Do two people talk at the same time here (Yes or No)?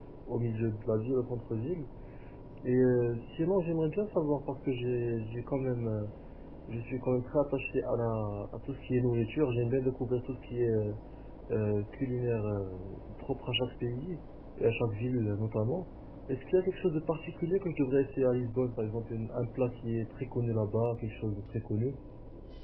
No